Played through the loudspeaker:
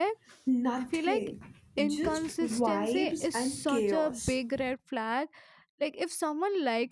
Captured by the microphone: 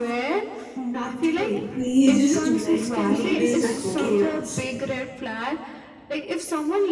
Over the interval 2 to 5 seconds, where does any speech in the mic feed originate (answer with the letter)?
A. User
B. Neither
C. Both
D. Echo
C